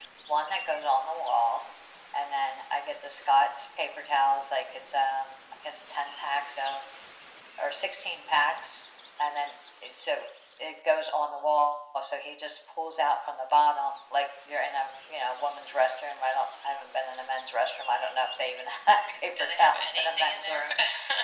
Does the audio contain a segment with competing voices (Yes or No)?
Yes